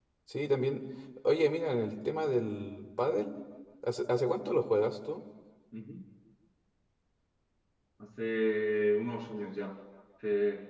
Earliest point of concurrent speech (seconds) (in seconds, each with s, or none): none